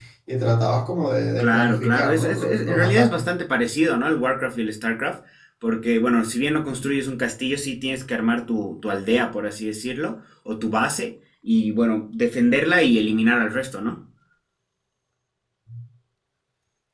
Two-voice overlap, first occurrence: 1.4 s

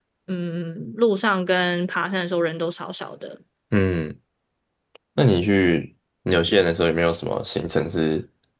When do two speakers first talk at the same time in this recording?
none

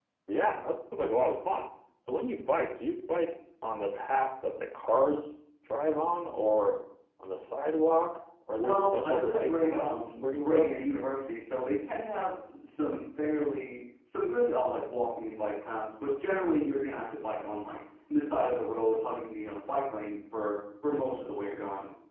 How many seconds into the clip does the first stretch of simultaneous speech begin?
8.6 s

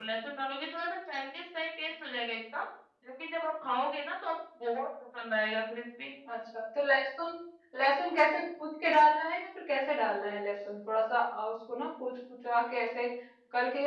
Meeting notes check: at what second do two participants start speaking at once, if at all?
none

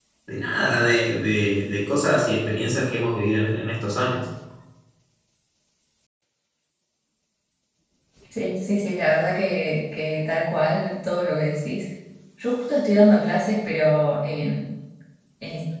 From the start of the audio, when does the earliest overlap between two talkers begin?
none

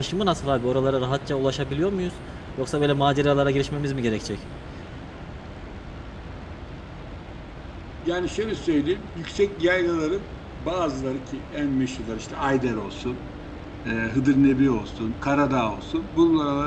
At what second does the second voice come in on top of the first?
none

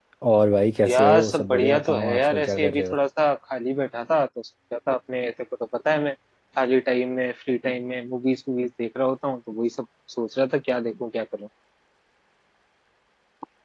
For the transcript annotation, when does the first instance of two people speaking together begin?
0.9 s

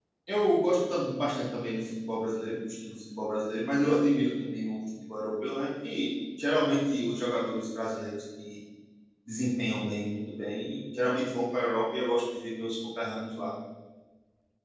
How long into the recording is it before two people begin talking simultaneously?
none

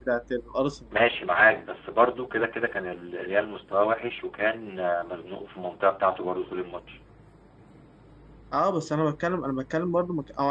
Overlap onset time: none

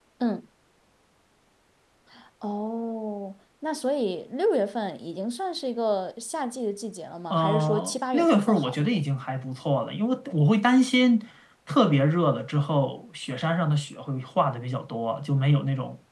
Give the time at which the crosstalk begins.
7.3 s

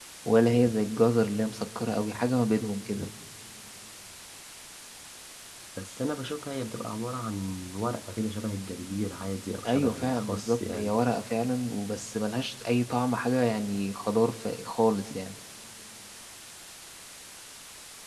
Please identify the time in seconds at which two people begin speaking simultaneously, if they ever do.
9.6 s

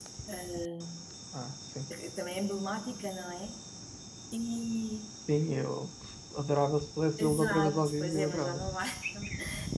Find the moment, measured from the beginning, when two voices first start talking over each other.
7.2 s

